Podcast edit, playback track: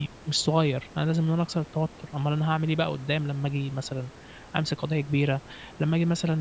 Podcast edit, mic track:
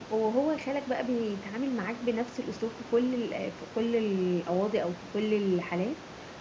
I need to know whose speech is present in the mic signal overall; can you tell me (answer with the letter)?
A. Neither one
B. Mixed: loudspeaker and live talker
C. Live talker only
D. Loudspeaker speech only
C